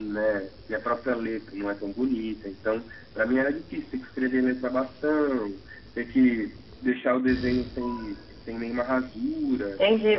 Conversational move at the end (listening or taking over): taking over